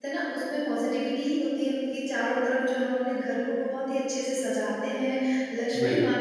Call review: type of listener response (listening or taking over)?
listening